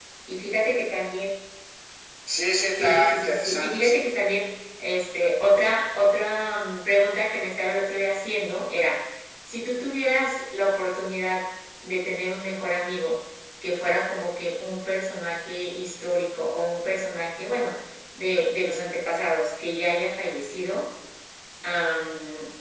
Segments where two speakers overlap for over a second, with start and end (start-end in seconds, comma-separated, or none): 2.8-4.1